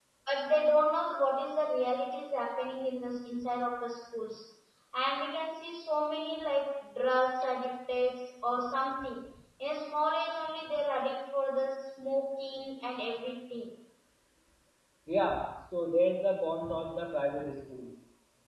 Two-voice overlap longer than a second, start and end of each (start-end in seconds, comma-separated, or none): none